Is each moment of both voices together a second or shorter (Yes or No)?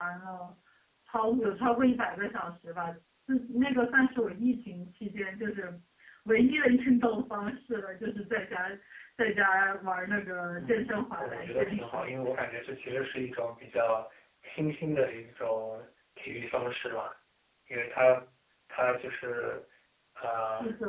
No